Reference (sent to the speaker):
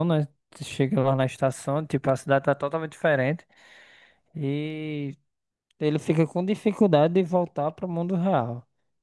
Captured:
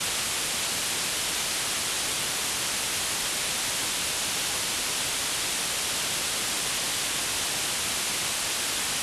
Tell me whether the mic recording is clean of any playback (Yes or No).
Yes